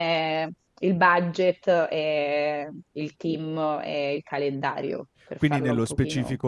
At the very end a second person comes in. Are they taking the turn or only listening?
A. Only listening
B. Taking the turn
B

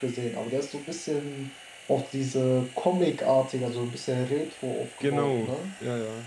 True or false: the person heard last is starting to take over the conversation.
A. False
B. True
B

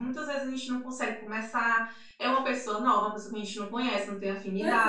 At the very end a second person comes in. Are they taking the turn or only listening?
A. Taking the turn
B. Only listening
A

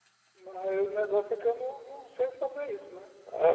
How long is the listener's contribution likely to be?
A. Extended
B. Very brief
A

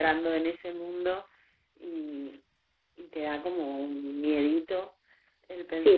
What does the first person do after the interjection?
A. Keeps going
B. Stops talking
B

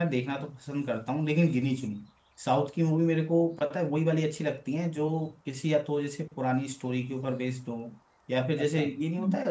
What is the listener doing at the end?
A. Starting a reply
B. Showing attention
B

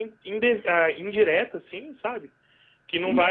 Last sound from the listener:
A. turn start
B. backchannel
B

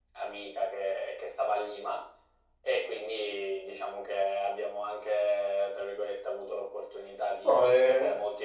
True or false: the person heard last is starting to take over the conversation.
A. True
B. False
B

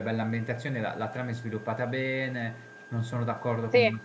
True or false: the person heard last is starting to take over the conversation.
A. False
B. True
A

